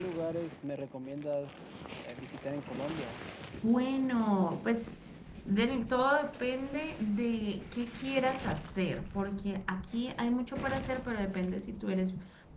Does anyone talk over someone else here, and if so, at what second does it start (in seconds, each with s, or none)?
none